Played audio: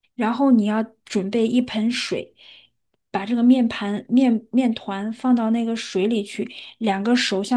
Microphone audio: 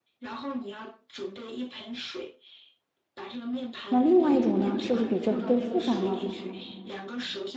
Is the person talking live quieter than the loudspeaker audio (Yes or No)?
No